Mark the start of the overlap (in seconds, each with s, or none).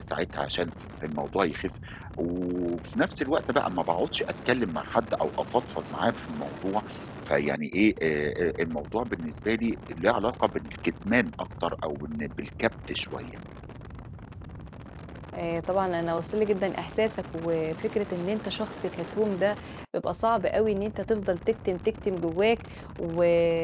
none